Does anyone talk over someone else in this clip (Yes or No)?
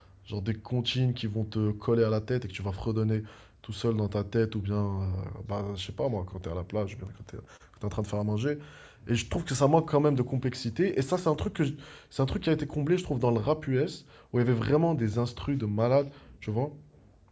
No